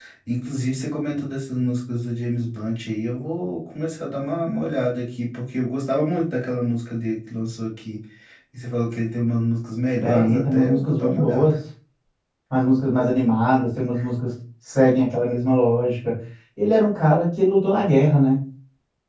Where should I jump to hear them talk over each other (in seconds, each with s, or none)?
10.0 s